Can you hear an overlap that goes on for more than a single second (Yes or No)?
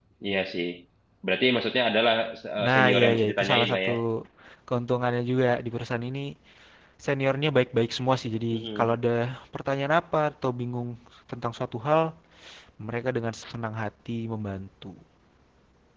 Yes